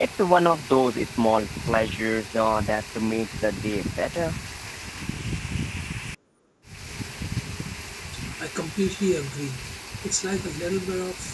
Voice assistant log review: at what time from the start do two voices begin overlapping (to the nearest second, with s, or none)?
none